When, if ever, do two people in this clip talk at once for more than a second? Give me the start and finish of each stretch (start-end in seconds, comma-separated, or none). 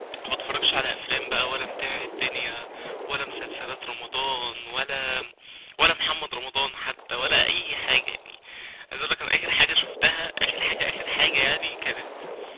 none